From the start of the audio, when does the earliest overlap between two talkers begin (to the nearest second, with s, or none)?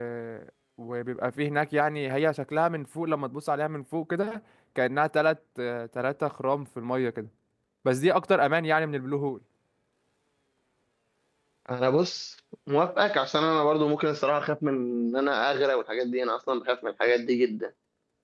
none